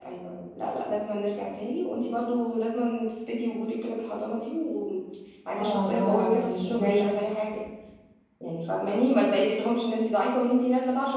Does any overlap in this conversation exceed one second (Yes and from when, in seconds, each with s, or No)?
Yes, from 5.6 s